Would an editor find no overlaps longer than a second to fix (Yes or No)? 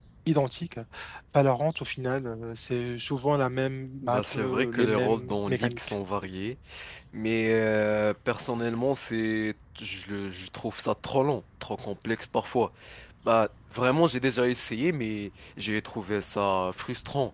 No